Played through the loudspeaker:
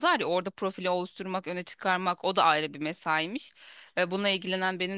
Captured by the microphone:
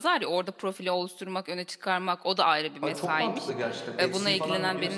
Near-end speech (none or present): present